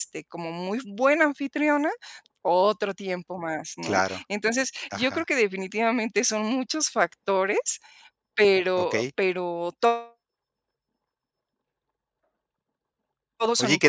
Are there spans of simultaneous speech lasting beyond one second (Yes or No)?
No